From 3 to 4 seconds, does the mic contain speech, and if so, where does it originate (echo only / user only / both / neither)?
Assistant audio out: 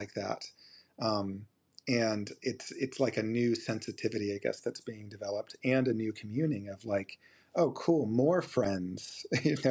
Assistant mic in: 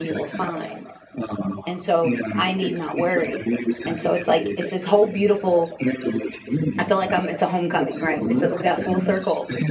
both